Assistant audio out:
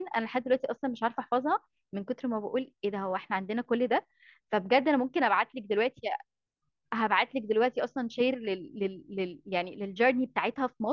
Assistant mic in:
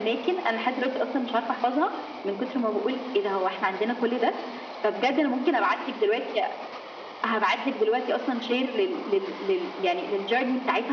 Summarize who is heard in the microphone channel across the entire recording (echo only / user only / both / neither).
echo only